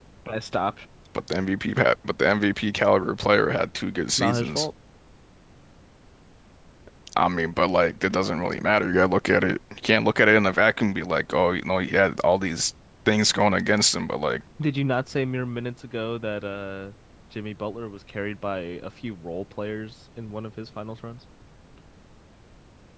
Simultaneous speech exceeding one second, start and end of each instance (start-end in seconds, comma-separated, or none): none